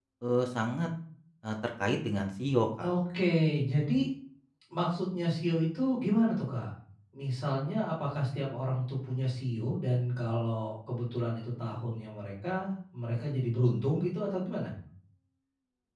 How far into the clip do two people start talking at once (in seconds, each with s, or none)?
none